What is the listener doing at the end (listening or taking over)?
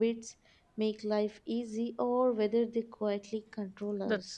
taking over